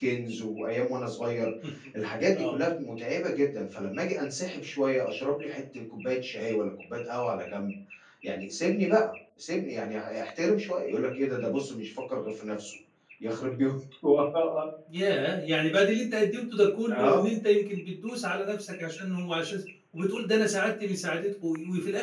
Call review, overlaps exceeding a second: none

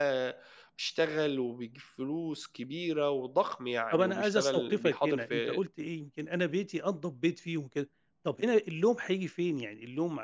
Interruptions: present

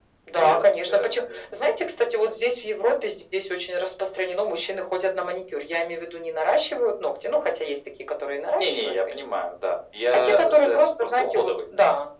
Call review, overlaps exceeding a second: present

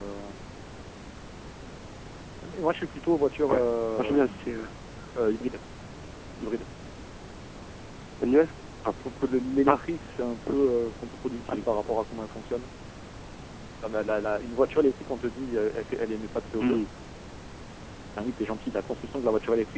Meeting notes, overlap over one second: none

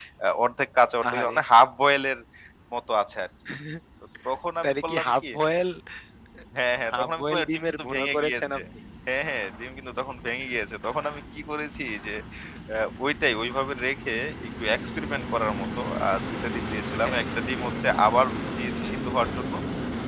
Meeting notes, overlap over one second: present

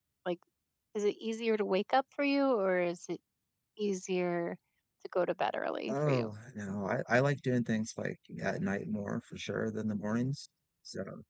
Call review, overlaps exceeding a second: none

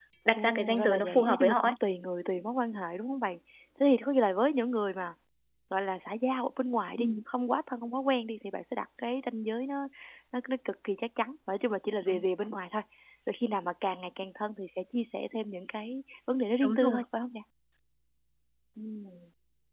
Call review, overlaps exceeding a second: present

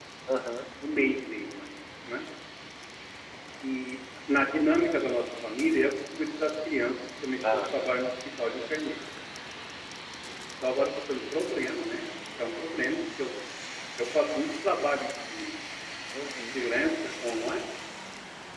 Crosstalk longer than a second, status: none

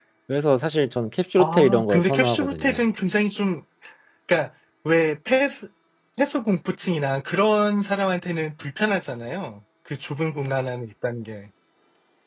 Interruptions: present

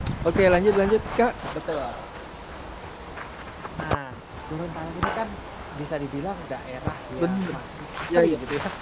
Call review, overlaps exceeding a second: none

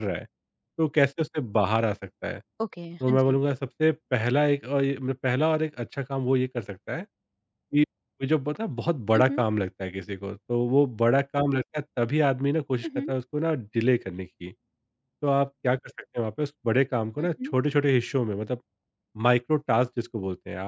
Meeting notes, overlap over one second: none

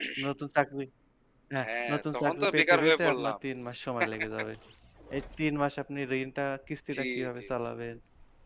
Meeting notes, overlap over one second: present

